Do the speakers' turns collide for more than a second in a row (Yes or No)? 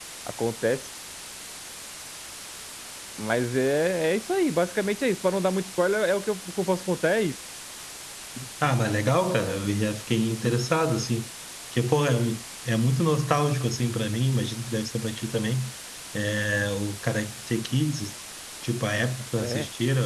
No